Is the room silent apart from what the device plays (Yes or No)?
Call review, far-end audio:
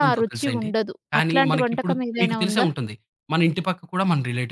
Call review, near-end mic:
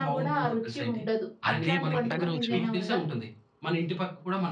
No